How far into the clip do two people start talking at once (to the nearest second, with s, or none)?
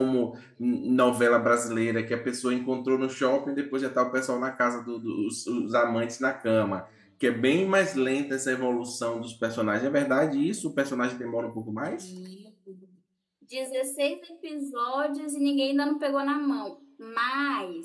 none